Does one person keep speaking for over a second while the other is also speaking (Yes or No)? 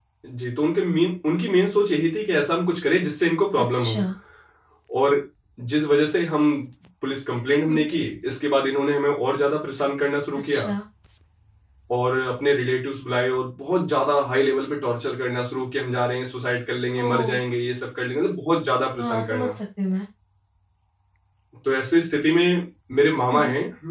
No